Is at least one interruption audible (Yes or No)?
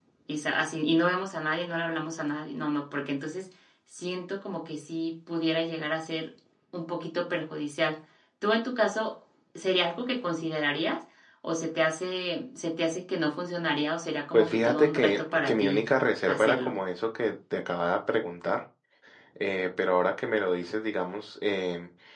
Yes